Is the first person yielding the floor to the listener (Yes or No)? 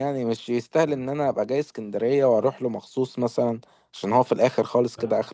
Yes